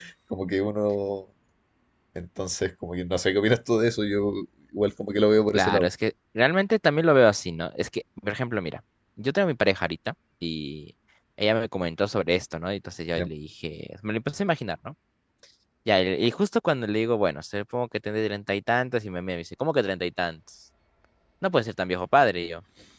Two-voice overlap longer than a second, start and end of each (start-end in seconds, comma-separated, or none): none